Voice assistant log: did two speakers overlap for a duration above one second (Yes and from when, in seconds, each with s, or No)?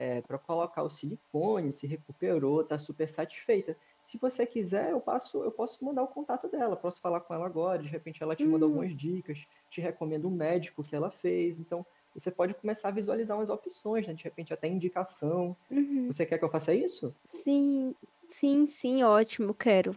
No